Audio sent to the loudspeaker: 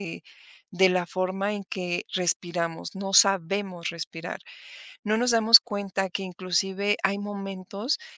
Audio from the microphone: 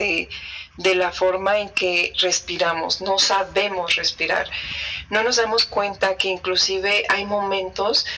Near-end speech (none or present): none